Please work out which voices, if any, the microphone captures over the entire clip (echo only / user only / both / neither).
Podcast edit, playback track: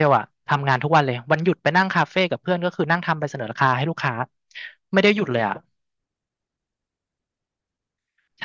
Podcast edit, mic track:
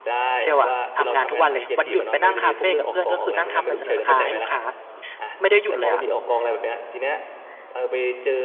both